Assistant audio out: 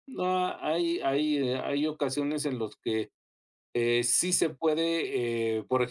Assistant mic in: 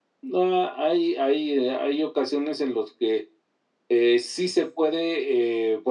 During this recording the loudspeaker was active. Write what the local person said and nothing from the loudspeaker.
none

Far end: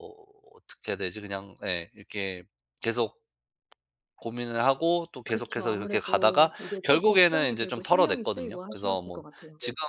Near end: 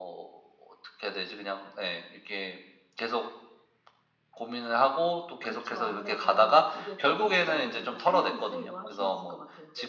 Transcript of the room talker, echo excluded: none

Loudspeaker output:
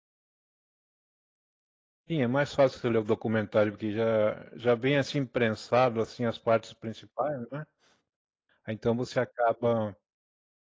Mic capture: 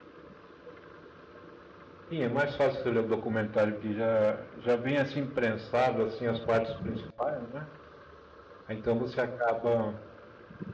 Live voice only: none

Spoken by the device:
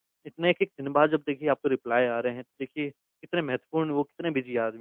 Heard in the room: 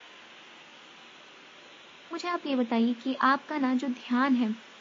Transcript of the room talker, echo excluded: मुझे आप ये बताइए कि आपका ना जो ध्यान है,

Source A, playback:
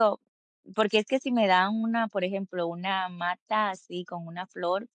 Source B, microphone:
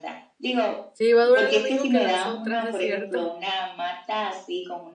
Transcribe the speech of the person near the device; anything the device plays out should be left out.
Sí, va a durar lo mismo que las otras, es cierto.

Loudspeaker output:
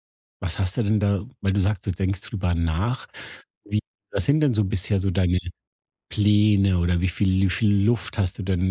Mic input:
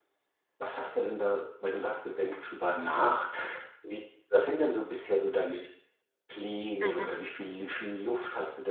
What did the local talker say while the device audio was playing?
Mhm.

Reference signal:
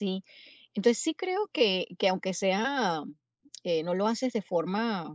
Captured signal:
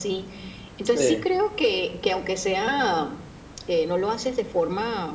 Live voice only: sí,

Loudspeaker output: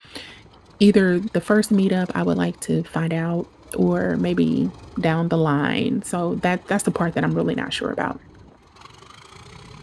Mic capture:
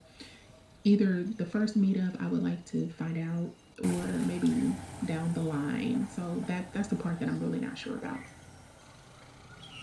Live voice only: none

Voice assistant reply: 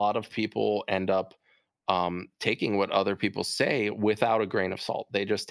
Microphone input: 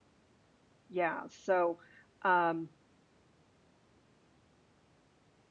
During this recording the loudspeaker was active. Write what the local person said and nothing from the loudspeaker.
Yeah, so, um,

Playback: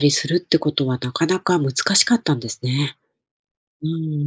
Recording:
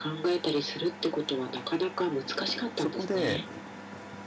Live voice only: そこで、

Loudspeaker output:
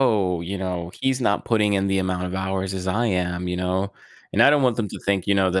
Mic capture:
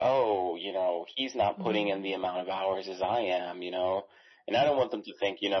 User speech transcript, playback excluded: hmm

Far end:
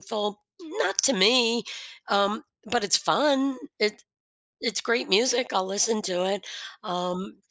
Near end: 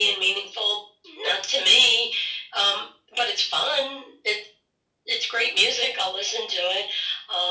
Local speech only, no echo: none

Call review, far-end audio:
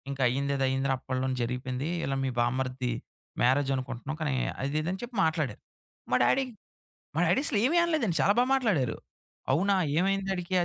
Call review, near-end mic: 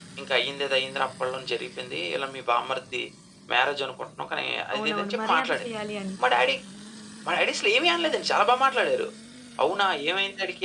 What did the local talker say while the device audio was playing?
అవునవును. మర్యాద చేయాలి అని.

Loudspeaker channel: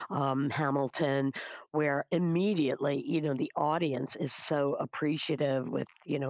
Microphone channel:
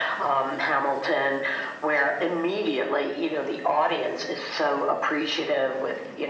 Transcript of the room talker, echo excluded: none

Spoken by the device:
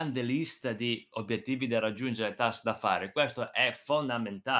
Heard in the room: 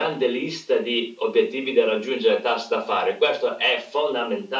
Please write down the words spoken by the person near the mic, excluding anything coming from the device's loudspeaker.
none

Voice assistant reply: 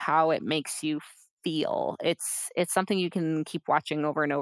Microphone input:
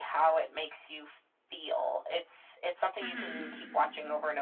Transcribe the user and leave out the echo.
Mm-hmm.

